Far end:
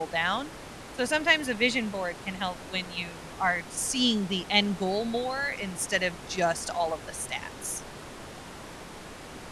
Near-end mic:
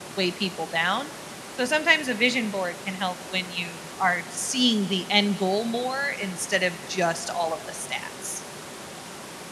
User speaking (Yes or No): No